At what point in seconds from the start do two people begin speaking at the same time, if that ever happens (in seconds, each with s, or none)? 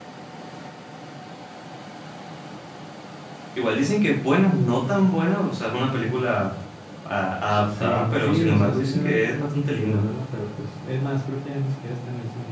7.8 s